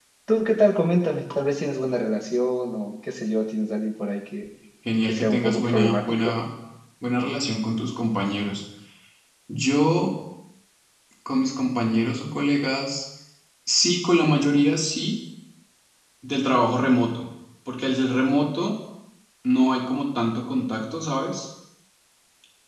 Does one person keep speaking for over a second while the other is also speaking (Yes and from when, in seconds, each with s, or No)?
Yes, from 5.1 s